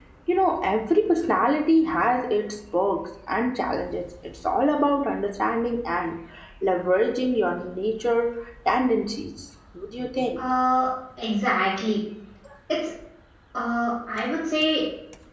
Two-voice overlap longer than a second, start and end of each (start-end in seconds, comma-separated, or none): none